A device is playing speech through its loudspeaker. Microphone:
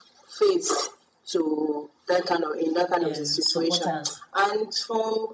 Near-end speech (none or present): present